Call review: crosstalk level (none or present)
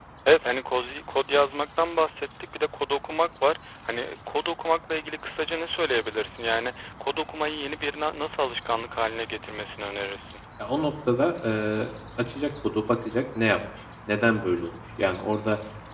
none